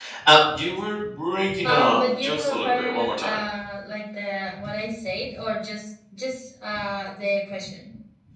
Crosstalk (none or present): present